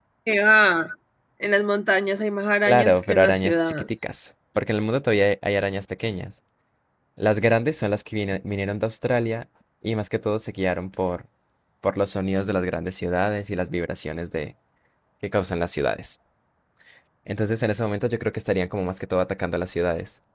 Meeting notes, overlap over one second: present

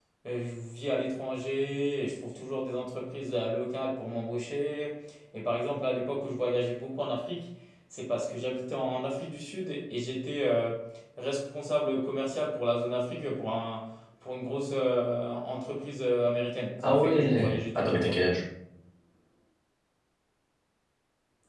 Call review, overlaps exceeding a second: present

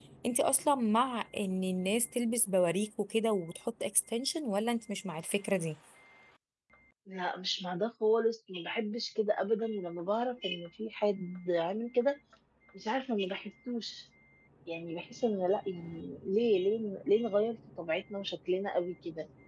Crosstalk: none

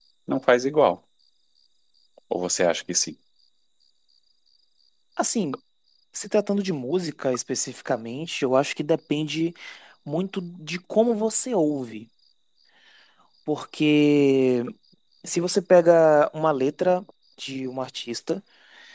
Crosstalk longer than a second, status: none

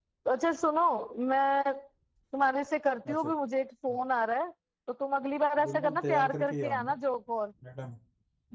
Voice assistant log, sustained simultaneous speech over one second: present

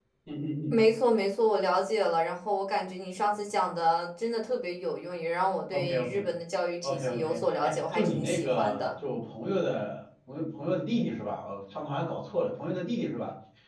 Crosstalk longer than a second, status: present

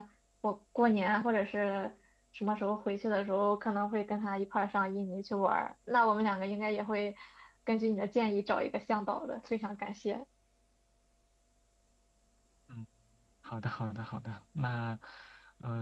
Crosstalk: none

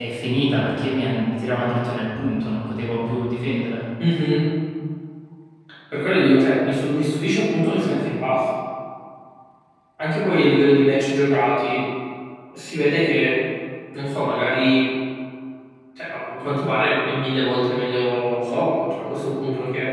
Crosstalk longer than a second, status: none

